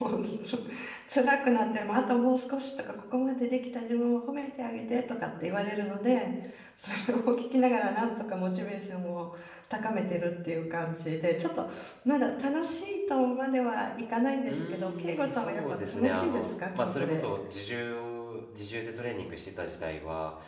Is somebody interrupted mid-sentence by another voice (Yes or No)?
Yes